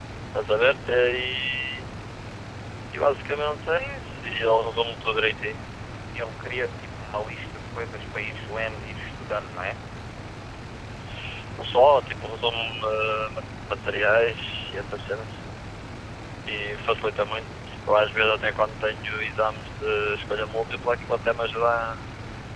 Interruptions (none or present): none